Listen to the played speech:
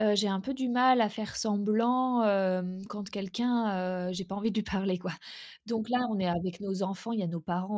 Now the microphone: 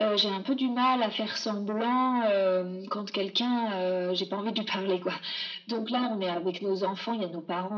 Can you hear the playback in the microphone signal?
Yes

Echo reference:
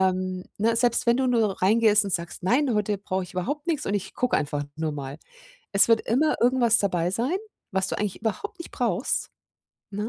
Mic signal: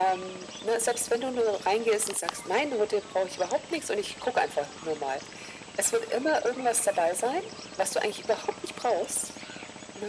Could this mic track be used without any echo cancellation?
No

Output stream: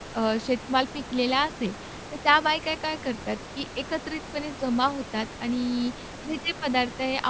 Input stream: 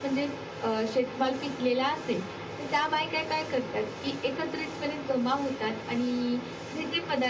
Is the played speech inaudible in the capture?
No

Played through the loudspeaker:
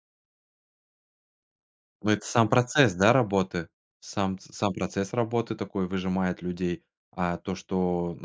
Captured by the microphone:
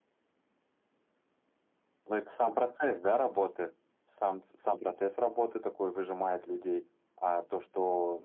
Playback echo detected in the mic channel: Yes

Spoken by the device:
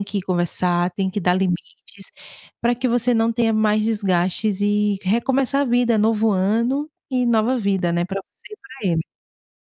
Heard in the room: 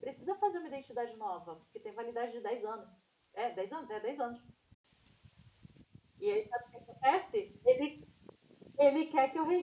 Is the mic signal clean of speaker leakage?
Yes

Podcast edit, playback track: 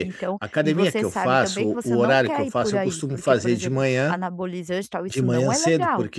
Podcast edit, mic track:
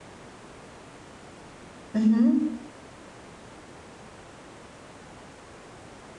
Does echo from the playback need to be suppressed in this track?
No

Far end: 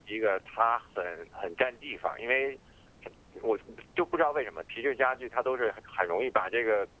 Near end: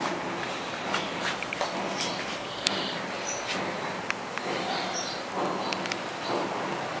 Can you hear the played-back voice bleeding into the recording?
No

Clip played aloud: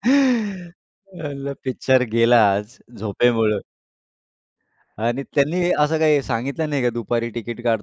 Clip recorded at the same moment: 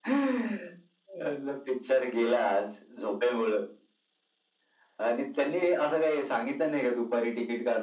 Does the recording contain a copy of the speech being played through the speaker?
Yes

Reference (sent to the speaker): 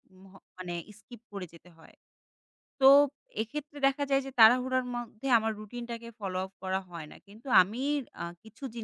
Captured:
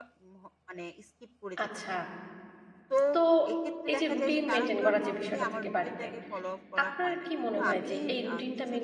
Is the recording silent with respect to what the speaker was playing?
No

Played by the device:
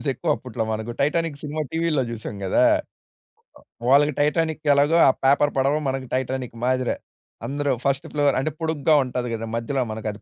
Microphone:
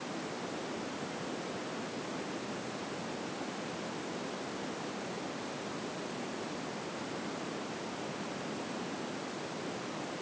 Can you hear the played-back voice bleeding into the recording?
No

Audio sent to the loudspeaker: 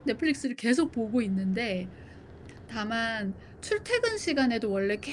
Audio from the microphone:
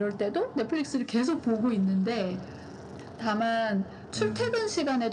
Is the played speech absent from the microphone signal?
No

